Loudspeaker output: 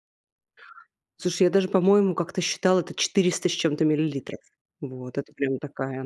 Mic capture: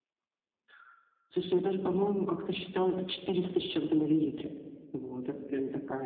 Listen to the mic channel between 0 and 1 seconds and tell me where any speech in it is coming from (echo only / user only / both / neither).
neither